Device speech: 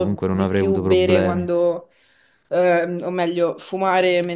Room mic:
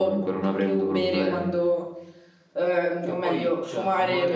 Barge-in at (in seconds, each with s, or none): 3.0 s